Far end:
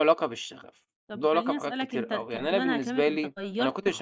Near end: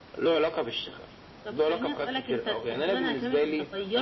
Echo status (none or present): present